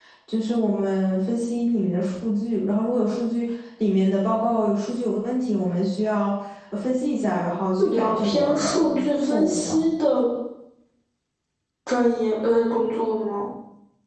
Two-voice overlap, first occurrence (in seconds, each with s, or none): 7.8 s